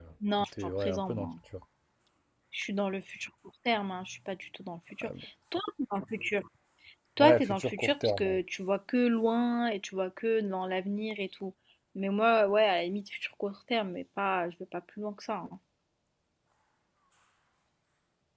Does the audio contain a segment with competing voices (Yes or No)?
Yes